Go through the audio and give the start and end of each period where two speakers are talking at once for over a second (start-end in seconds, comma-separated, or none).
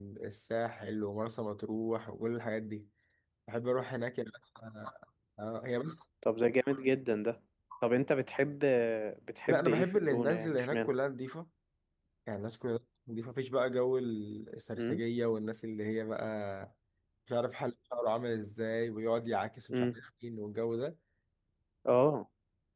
9.5-10.9